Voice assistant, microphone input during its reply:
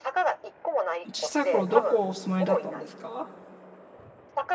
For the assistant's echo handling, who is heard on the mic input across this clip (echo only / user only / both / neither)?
both